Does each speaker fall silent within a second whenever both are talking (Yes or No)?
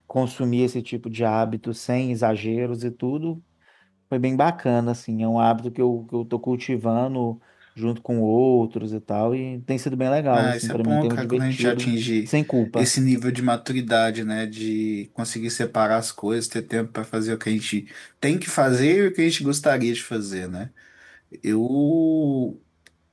No